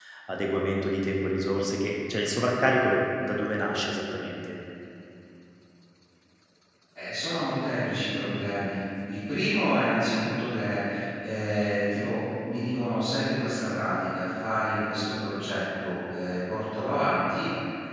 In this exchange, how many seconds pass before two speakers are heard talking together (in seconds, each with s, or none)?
none